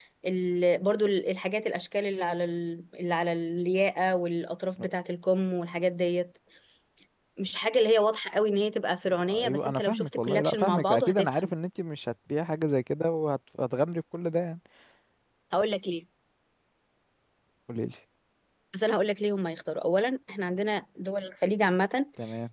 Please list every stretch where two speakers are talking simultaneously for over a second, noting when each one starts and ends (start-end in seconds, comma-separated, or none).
9.3-11.5